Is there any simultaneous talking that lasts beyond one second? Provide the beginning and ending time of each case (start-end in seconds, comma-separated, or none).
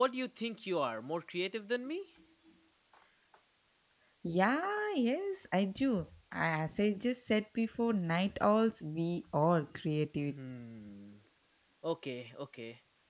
none